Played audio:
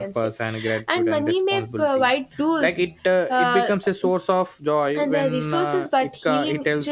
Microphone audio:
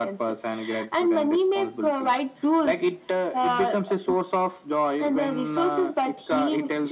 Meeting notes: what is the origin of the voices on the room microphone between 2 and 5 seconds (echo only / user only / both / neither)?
echo only